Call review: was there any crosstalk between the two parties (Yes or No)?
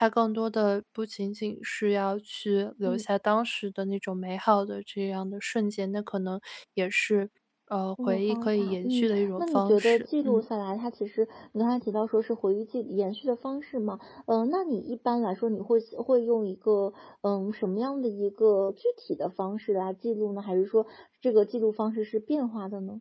Yes